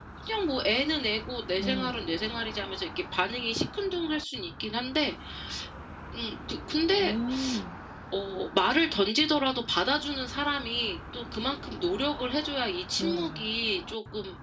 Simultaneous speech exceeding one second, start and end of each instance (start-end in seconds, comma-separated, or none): none